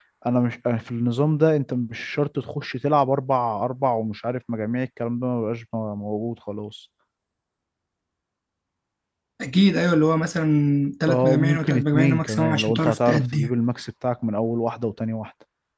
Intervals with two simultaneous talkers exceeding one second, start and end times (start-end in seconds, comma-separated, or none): 11.1-13.5